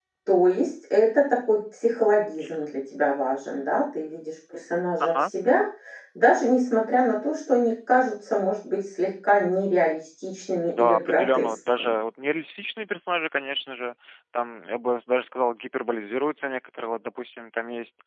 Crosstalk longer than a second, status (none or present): present